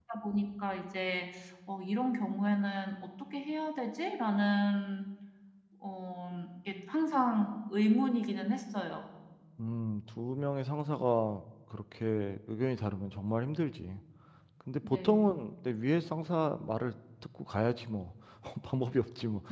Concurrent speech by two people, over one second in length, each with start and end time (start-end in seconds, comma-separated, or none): none